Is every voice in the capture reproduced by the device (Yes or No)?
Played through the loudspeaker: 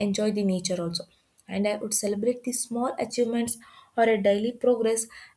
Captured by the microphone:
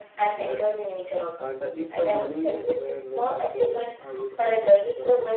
No